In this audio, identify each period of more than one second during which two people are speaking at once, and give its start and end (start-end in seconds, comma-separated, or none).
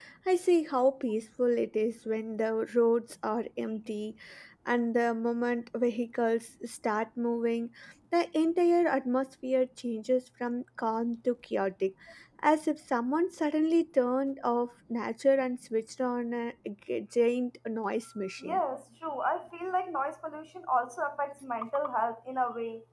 none